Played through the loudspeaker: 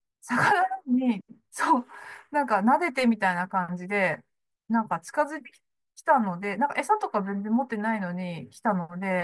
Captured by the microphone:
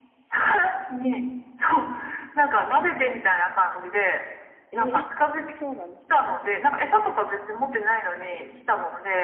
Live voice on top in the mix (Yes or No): No